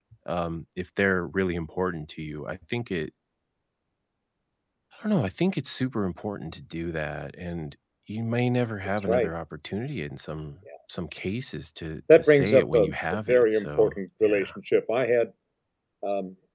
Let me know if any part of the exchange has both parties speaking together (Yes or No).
Yes